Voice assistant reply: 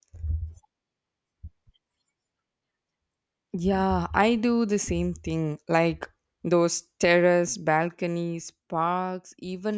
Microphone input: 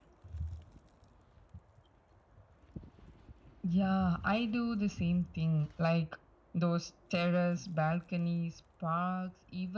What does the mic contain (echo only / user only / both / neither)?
echo only